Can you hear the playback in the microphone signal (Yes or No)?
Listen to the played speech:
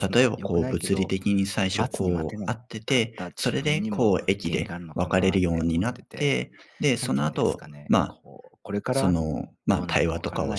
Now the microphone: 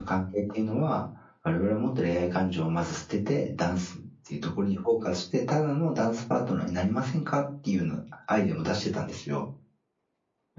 No